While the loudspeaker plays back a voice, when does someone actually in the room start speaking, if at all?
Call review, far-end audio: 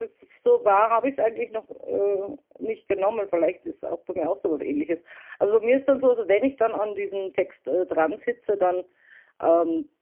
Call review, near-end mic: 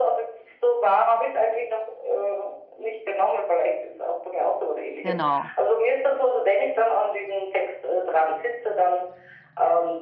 5.0 s

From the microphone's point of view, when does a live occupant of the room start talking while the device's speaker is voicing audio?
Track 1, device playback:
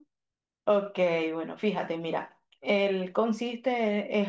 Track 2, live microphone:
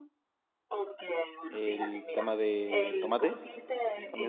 1.5 s

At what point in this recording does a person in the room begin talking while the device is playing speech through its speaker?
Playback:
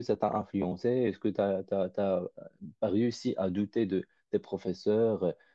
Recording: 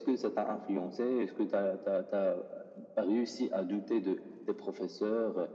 none

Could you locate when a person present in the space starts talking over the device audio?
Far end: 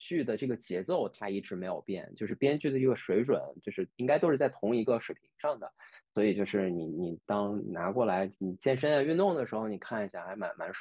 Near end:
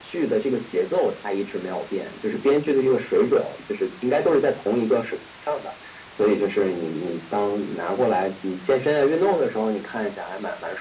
none

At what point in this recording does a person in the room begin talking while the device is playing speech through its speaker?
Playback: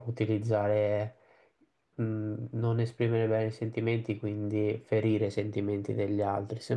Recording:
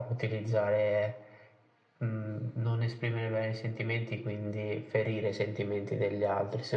none

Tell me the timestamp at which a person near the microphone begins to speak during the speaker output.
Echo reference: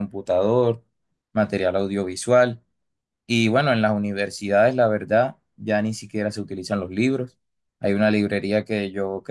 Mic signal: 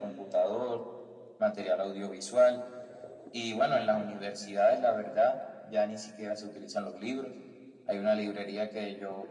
3.7 s

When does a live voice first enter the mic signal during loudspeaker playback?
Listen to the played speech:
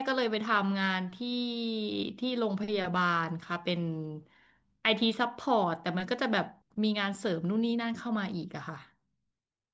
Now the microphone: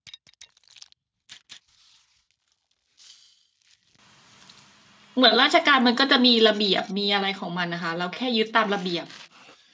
5.1 s

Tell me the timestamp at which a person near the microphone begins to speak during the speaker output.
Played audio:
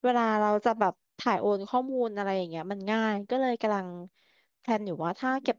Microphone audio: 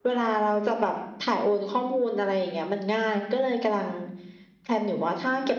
none

